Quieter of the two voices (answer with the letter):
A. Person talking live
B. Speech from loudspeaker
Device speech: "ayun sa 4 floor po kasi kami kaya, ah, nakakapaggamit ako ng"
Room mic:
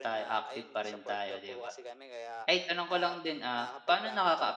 B